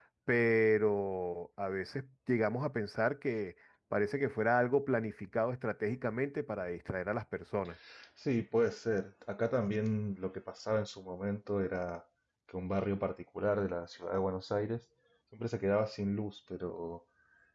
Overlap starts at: none

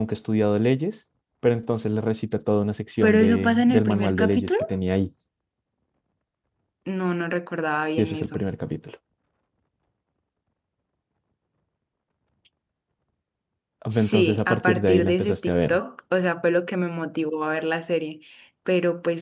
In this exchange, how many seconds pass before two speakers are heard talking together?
3.0 s

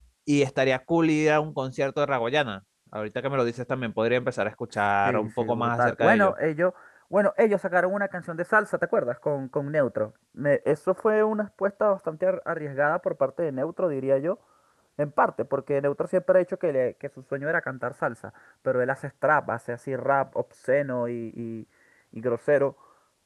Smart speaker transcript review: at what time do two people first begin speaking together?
5.0 s

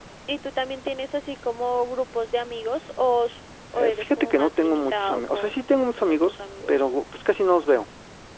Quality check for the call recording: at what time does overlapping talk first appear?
3.8 s

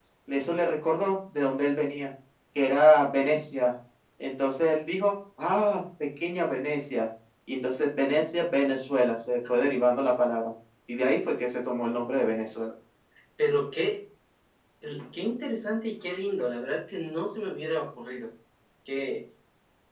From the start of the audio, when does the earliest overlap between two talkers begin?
none

